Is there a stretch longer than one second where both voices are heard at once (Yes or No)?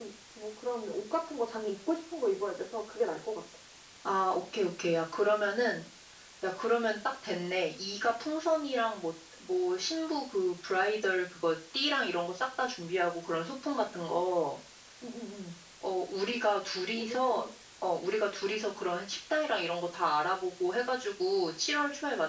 No